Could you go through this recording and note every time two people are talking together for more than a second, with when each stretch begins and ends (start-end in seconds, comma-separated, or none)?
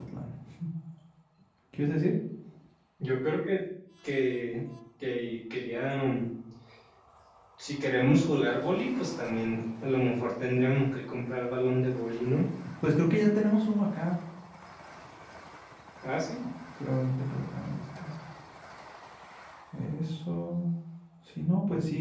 none